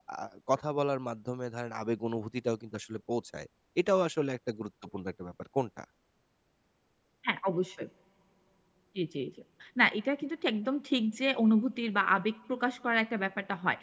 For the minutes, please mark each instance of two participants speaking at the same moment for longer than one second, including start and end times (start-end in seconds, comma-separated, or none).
none